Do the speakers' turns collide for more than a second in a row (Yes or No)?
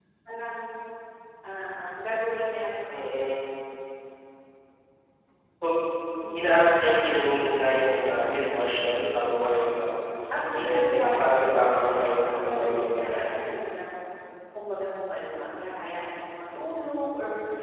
Yes